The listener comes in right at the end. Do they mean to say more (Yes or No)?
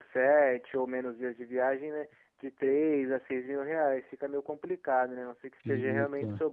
No